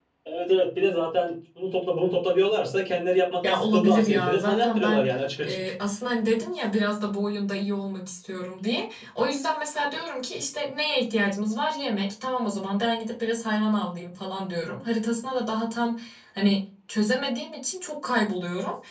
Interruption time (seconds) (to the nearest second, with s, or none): 3 s